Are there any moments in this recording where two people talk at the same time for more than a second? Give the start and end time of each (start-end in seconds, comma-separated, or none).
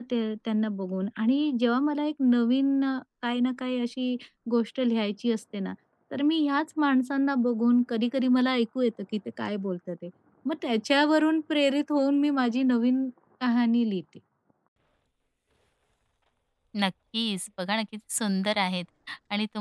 none